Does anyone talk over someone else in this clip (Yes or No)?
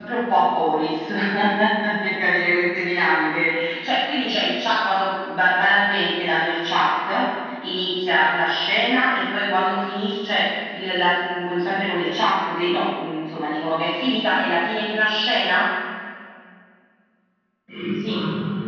No